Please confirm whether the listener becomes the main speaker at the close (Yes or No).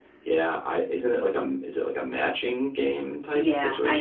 Yes